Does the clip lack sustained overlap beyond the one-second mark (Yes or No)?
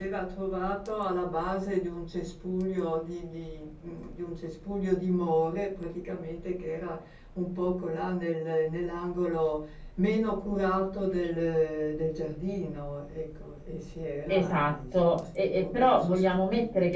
No